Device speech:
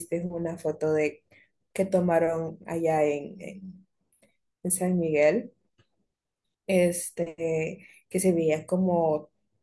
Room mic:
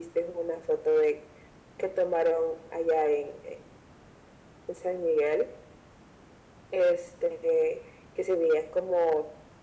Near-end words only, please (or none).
none